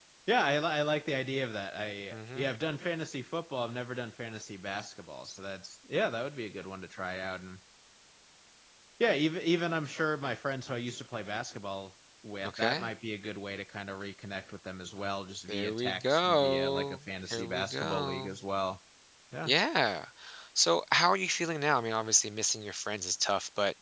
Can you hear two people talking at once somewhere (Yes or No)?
Yes